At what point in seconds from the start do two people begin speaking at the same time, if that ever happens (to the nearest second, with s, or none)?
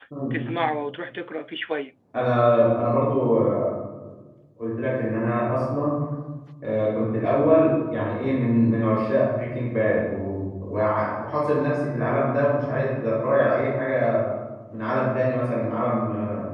none